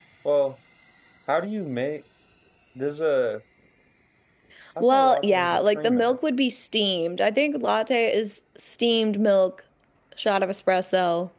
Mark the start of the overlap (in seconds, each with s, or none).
4.8 s